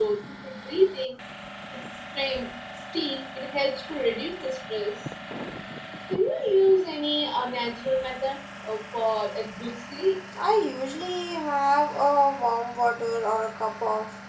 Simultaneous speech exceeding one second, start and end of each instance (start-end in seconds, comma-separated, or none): none